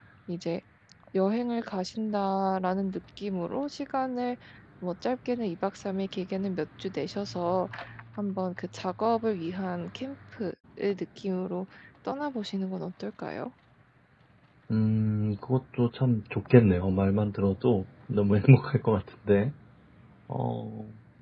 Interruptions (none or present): none